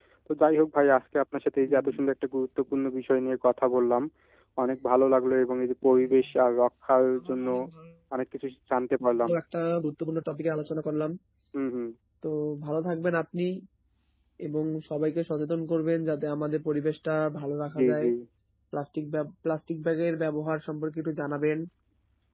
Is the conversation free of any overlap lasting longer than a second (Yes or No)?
Yes